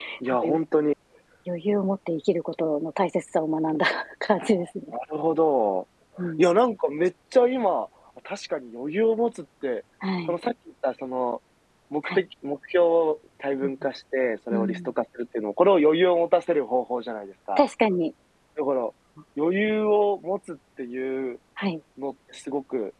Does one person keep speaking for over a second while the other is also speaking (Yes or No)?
No